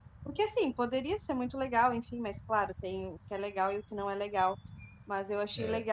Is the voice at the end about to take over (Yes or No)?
No